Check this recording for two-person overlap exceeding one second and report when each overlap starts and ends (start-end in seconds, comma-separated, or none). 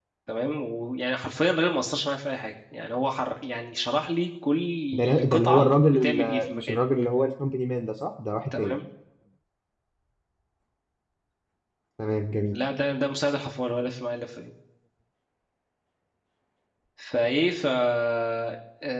4.9-6.8